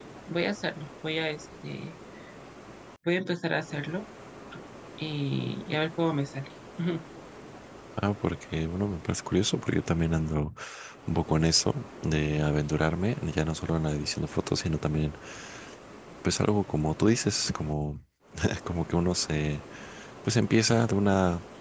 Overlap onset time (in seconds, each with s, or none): none